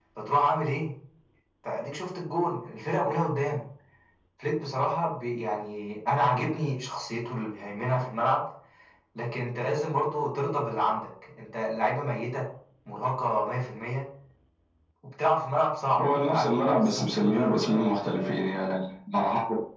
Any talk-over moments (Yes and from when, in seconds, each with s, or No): Yes, from 16.0 s